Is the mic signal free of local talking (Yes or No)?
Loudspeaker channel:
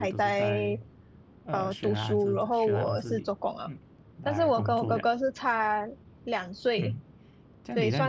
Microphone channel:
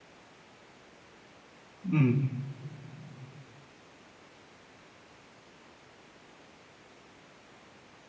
No